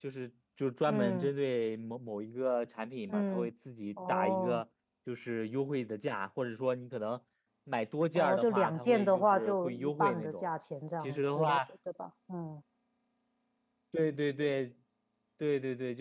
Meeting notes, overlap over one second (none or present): present